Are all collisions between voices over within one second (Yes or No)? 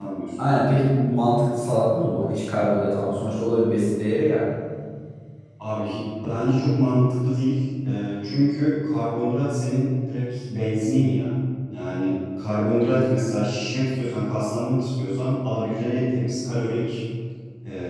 Yes